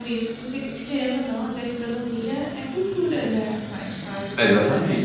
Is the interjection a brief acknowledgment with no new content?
No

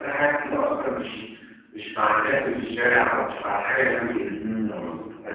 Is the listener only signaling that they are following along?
No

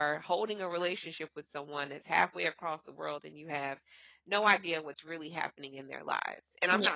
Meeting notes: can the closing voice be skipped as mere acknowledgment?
Yes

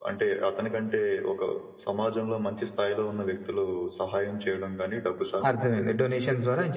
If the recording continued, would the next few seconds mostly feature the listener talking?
Yes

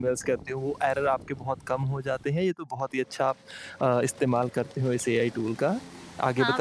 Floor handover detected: Yes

